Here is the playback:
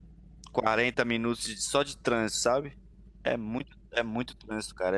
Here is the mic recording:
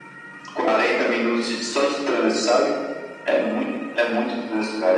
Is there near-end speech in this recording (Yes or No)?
No